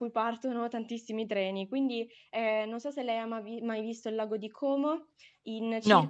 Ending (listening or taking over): listening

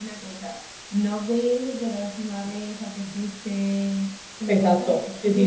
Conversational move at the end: taking over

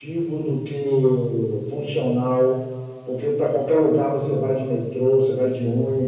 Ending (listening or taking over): listening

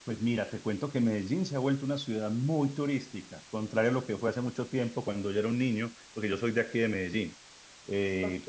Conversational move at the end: listening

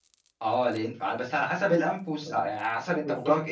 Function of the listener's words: taking over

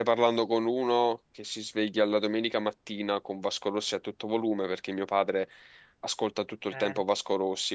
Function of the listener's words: listening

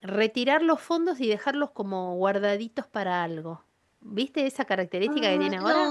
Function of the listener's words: taking over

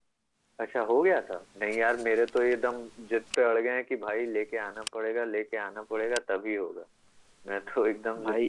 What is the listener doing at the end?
taking over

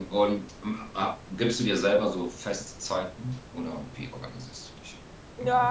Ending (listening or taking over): taking over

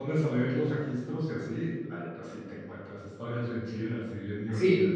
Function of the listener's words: taking over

